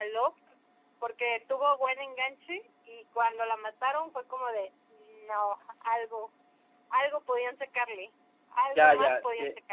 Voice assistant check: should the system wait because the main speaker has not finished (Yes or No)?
No